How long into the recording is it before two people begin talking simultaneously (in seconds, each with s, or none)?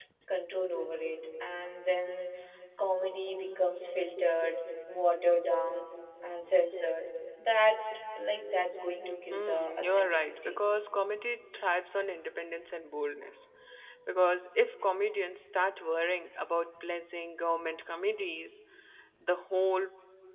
9.3 s